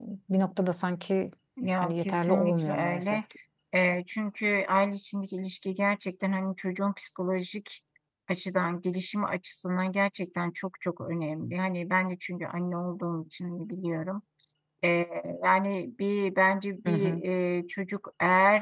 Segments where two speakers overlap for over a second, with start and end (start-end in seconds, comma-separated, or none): 1.8-3.2